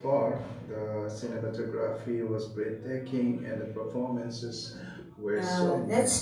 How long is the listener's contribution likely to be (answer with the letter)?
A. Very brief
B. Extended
B